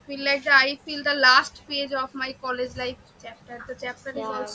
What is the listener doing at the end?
taking over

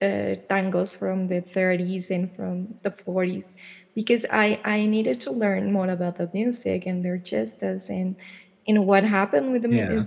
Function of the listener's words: listening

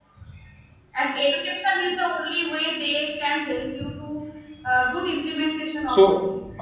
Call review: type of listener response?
taking over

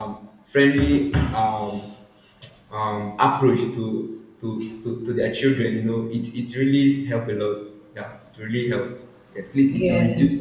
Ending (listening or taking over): listening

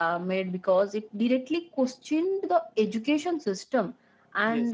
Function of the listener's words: listening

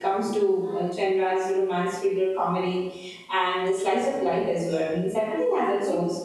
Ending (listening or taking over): taking over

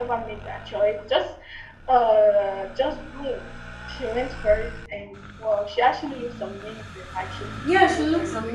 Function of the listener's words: taking over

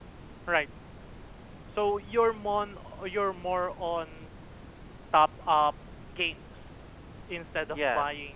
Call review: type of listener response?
listening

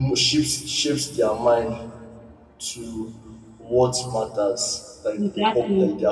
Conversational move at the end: listening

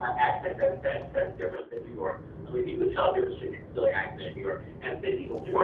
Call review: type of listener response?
listening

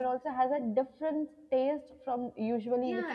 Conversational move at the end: taking over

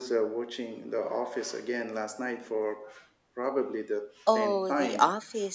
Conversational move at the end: taking over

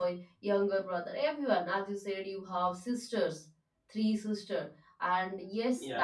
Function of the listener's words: listening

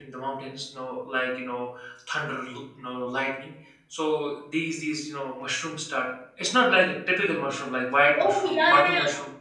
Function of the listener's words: taking over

